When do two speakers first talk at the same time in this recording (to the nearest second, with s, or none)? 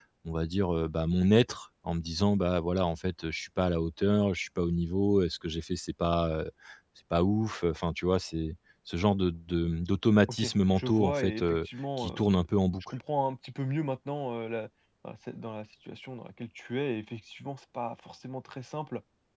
10 s